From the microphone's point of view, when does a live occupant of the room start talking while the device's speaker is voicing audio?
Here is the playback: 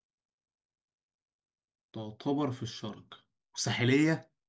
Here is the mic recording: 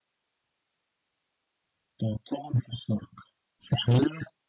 none

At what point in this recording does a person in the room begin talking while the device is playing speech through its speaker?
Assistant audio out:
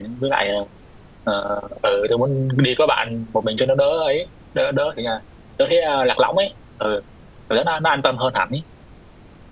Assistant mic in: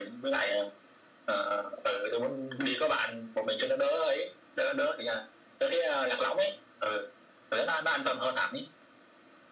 none

